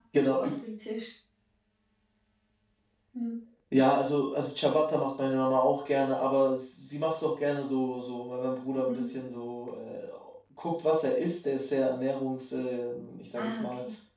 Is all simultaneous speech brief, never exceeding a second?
Yes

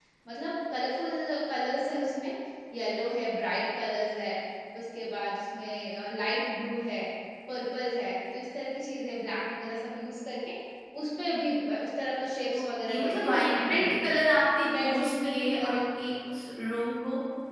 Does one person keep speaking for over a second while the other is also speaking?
Yes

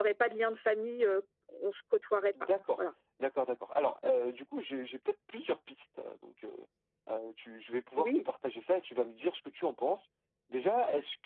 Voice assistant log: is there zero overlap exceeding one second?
Yes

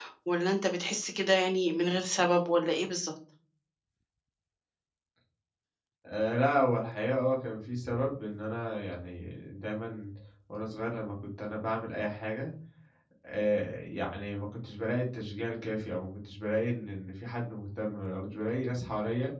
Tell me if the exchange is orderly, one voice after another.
Yes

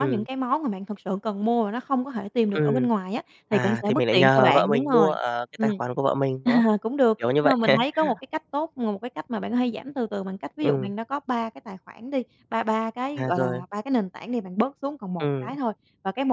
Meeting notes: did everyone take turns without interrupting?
No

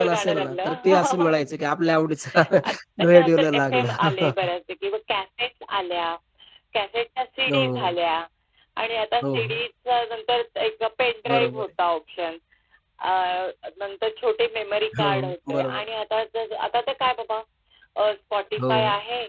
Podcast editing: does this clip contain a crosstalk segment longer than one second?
Yes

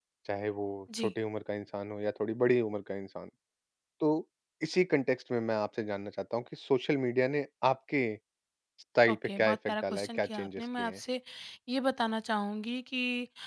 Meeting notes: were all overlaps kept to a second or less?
No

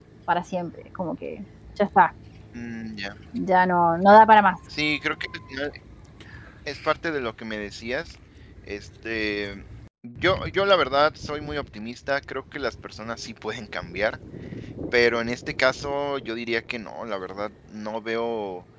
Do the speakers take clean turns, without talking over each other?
Yes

